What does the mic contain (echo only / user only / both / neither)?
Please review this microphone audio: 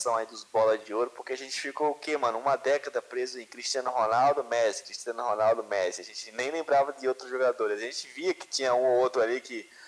echo only